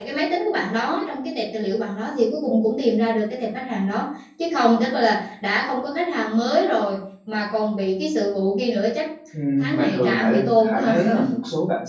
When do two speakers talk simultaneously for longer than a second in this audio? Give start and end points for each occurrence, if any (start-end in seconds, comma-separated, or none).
9.6-11.1